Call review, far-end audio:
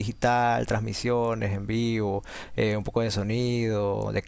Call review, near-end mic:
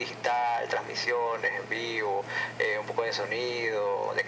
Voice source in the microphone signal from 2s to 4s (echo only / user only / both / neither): echo only